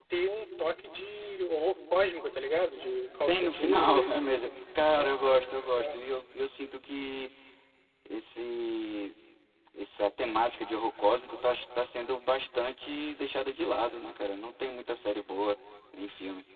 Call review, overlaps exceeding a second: present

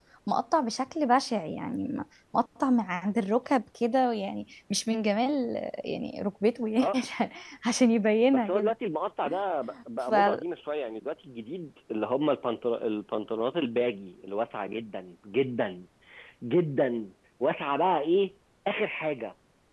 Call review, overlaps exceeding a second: none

